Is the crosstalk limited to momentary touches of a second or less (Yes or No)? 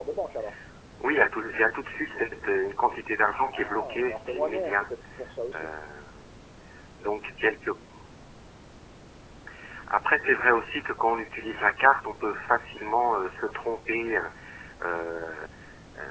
No